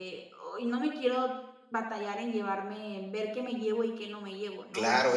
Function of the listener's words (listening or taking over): taking over